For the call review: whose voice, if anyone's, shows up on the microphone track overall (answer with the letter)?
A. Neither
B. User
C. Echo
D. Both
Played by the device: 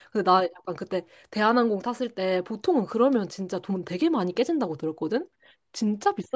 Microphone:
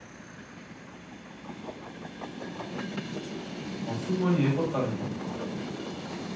B